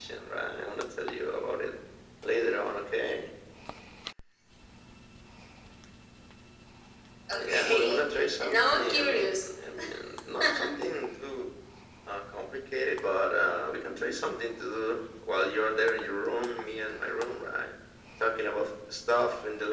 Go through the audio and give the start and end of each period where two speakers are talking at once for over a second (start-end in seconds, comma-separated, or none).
7.4-9.5